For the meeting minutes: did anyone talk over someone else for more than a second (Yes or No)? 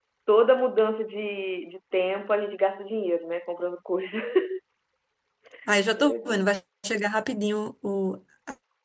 No